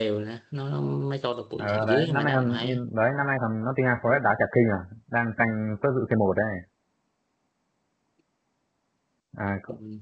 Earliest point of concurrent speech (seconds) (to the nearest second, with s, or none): 2 s